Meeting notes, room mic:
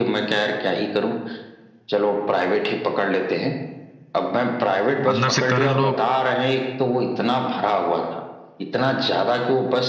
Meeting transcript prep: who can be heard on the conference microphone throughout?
both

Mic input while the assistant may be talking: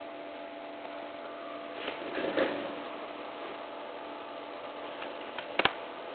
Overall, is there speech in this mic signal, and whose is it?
neither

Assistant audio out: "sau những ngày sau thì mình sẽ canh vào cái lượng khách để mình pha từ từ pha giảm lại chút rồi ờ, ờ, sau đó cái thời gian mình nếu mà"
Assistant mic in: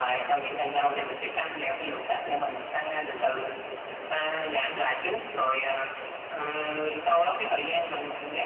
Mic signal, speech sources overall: echo only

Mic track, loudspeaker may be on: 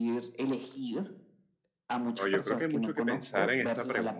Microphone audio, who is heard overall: both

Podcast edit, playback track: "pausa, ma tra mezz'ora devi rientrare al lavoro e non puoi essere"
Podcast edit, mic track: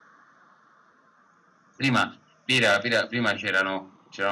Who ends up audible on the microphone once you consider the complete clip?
user only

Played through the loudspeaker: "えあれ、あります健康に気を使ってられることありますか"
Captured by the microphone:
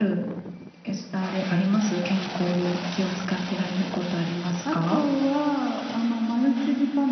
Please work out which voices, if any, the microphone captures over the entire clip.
both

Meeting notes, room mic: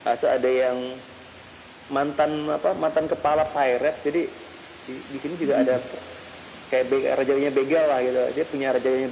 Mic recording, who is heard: both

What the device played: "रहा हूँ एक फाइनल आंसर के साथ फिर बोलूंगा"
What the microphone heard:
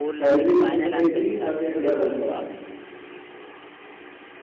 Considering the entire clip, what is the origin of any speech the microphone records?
both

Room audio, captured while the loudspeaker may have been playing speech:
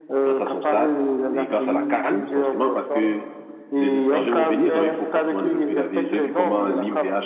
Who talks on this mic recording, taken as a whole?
both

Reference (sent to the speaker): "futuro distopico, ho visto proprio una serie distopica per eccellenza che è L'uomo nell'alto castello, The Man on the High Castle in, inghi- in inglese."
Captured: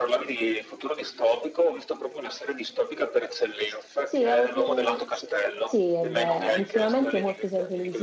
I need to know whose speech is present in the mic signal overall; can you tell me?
both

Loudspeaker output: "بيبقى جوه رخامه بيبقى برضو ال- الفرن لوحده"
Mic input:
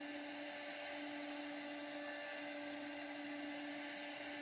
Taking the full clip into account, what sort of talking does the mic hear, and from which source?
neither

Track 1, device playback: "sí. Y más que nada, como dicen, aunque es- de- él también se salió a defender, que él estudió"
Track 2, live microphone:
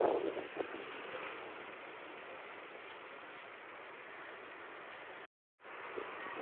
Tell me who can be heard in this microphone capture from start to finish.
neither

